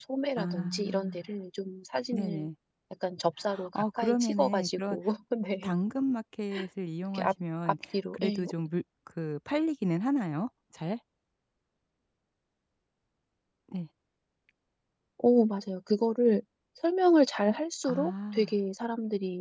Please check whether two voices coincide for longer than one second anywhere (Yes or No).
Yes